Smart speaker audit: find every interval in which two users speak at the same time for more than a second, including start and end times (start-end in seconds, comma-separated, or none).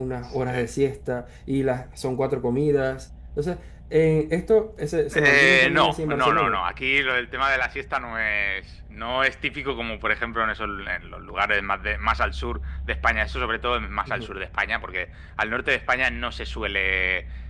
5.2-6.6